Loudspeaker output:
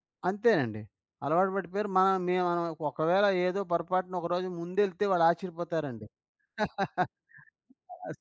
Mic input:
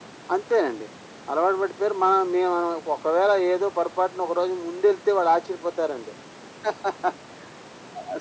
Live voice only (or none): none